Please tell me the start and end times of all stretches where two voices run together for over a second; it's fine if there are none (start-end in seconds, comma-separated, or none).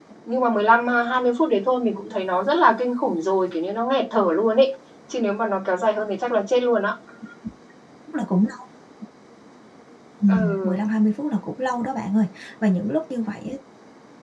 none